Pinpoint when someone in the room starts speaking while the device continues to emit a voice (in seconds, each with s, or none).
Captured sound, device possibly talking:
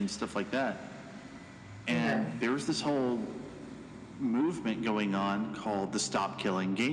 1.9 s